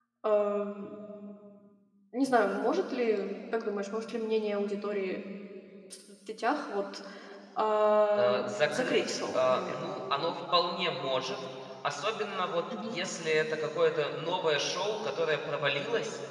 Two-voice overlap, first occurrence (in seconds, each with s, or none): 8.2 s